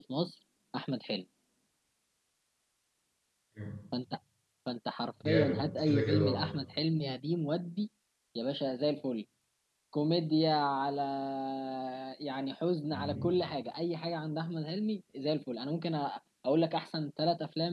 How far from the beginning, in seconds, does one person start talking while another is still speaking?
5.2 s

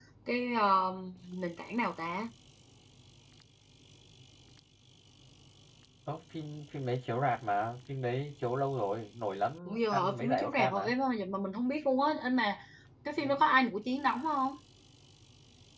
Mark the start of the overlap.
9.7 s

